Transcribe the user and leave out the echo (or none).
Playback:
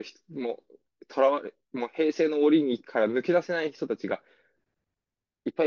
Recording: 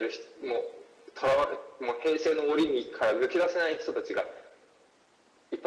none